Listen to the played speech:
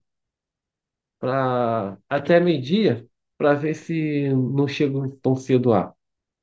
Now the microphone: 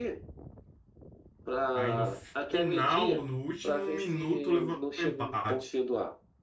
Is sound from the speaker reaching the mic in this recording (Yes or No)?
Yes